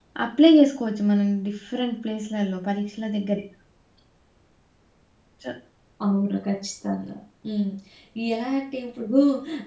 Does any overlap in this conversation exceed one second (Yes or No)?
No